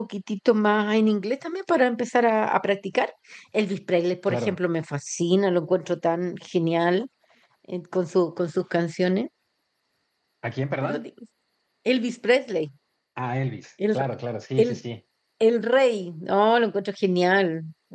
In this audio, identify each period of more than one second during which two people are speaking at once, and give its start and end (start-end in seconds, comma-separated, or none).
none